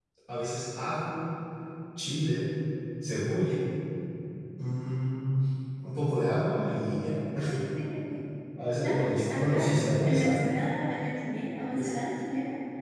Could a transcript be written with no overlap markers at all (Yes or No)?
No